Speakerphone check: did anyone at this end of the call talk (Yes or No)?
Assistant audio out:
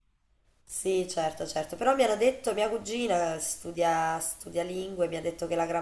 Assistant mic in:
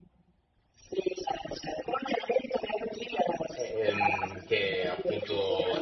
Yes